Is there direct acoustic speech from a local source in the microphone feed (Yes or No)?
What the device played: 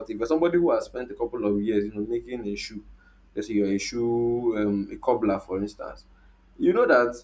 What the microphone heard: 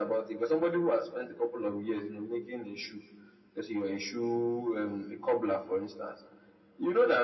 No